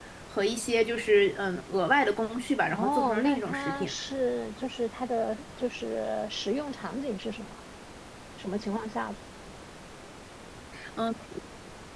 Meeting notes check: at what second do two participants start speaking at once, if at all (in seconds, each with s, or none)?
2.6 s